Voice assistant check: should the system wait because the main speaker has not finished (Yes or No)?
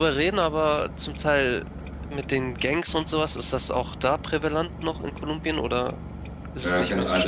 No